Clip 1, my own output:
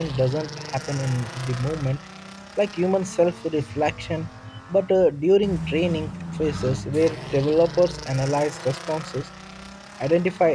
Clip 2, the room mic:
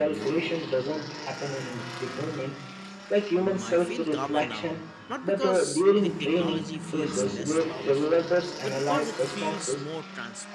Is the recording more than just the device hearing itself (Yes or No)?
Yes